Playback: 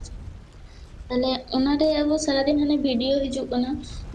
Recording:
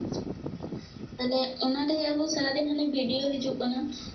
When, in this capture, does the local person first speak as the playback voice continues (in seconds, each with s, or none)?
none